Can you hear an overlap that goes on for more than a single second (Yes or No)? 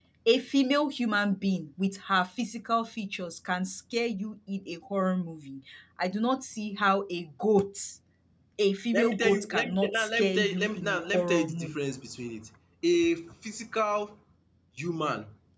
Yes